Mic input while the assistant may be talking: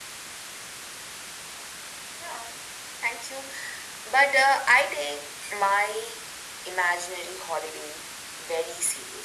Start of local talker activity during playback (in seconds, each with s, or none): none